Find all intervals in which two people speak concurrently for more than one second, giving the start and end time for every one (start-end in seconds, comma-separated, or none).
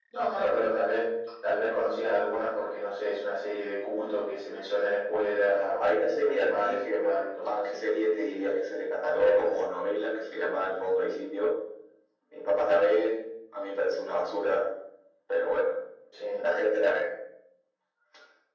5.4-7.8